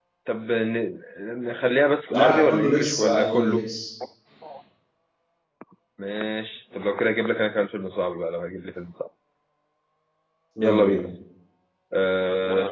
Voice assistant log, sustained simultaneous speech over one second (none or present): present